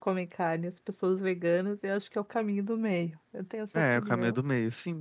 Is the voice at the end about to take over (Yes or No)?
Yes